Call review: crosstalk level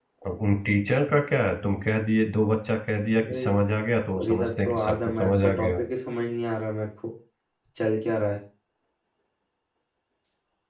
present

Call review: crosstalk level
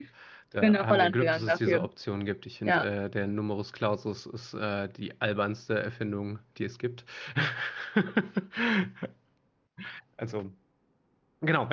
present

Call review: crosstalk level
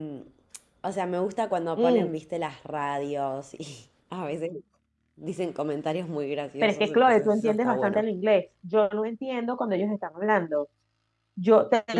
present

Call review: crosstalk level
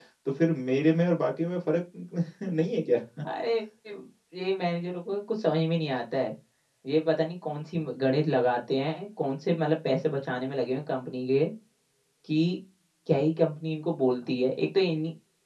none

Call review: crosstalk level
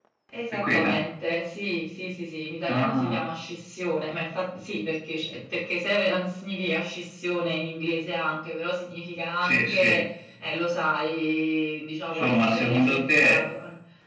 present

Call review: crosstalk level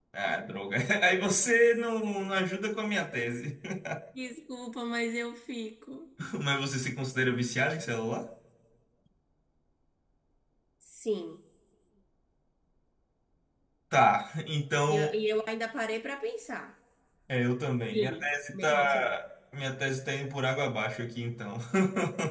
present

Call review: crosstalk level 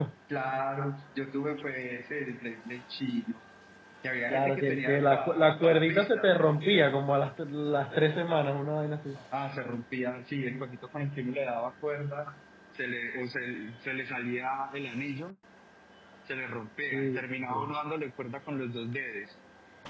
present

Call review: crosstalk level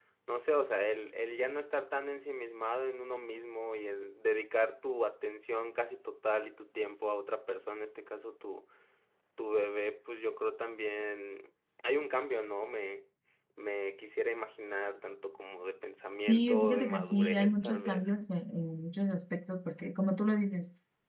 present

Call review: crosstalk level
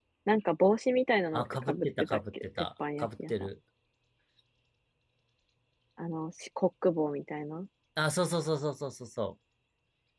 present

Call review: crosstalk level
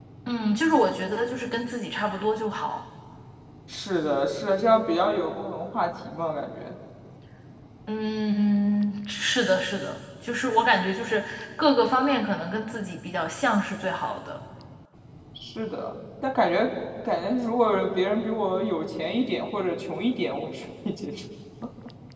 none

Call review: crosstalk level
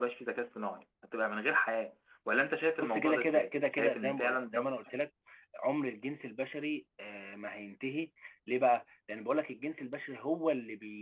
present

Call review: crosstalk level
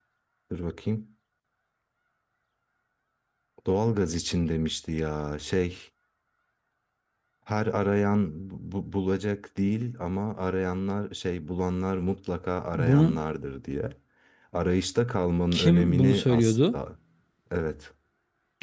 present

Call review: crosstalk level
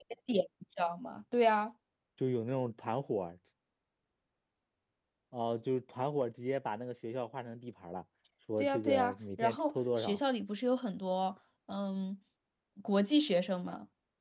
present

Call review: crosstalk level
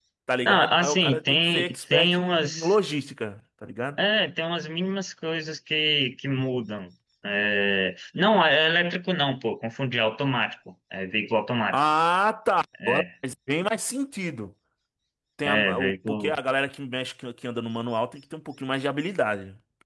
present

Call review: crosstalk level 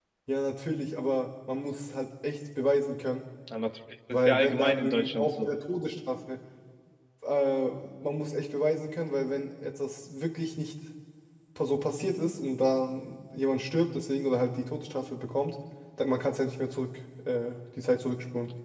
present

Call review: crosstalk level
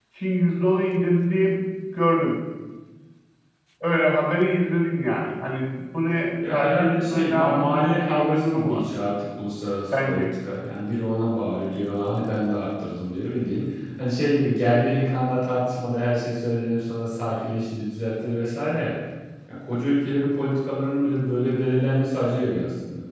present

